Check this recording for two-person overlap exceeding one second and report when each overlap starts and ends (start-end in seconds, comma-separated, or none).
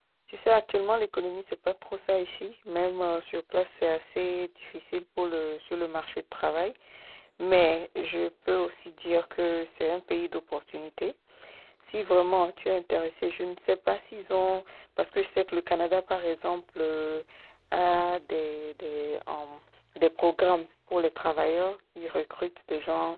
none